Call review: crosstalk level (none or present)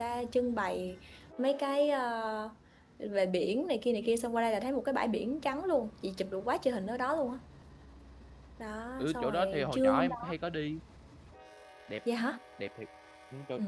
present